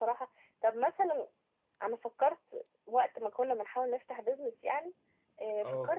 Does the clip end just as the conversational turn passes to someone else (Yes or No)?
No